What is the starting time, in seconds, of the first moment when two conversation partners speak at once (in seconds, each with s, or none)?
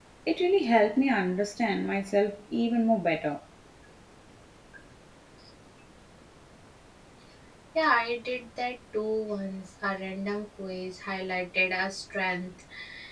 none